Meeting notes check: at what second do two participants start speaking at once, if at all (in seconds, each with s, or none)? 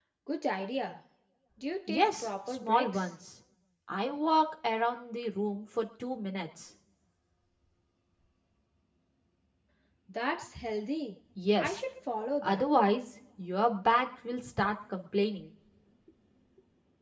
1.9 s